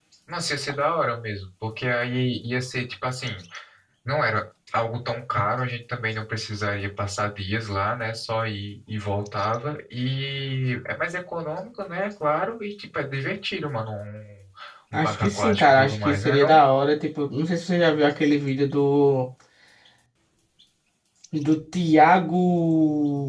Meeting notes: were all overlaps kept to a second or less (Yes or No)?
No